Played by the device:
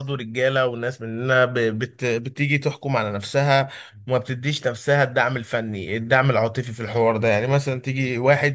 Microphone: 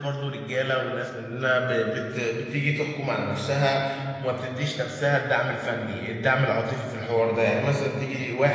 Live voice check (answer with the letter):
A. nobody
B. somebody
A